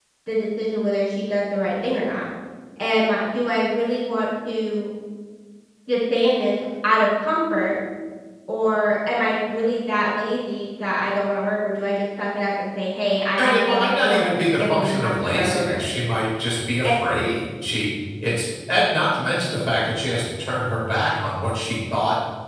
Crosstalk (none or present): present